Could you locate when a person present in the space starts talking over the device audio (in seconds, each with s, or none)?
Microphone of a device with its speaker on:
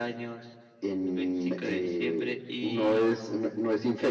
none